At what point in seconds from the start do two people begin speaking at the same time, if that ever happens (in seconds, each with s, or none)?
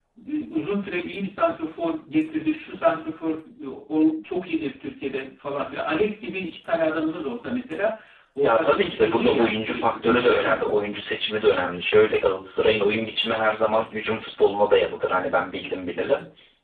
8.4 s